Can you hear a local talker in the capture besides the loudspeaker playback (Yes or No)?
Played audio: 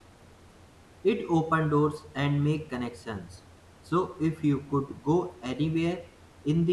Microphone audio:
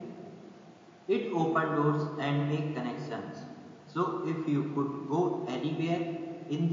No